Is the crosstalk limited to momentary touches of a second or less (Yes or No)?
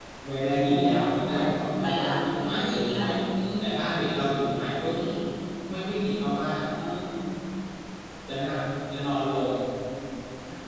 No